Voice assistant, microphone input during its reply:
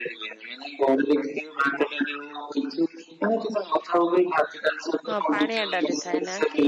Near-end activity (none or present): present